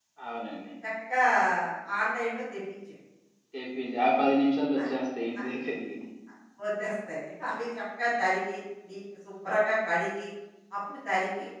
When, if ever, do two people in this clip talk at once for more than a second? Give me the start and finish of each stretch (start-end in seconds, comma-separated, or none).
none